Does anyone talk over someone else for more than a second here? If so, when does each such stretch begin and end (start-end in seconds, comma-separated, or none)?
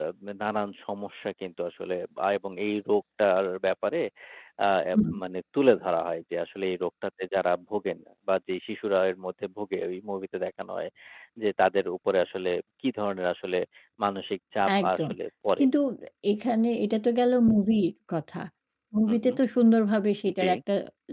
none